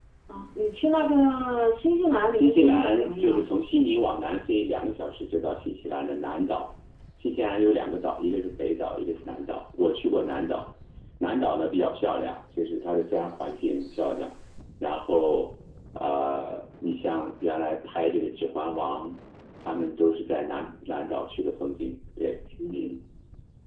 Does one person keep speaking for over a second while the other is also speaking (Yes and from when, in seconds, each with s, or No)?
Yes, from 2.3 s